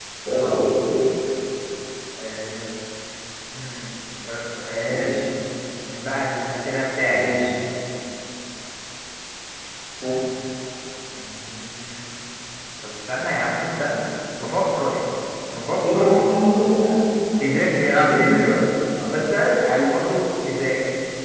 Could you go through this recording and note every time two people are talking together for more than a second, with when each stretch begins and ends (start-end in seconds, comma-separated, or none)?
none